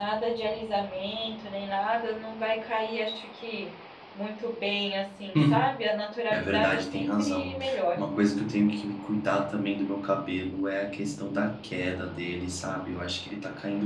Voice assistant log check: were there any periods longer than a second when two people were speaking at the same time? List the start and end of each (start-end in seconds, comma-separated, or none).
6.3-7.6